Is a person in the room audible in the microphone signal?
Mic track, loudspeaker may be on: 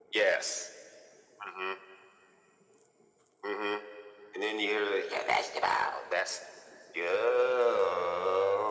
No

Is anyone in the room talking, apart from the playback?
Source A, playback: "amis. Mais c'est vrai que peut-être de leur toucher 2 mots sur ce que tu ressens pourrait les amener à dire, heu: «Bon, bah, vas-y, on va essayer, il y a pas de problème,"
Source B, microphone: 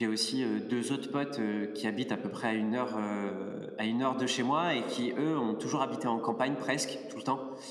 Yes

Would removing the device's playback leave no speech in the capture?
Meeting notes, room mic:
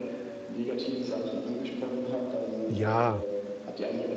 No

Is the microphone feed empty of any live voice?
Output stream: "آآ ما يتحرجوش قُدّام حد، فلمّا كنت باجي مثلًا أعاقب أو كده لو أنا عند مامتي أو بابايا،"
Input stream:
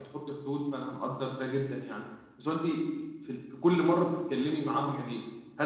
No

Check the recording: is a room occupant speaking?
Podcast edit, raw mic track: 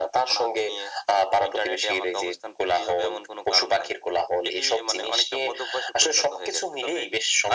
No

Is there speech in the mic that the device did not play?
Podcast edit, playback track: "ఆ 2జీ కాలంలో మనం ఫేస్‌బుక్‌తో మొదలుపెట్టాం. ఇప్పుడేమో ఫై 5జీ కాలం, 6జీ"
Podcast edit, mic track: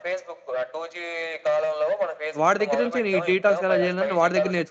Yes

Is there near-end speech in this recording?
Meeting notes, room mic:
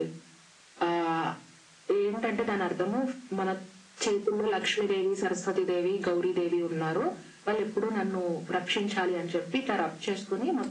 No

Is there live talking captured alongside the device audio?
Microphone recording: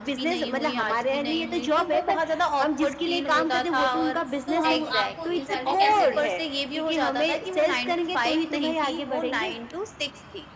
Yes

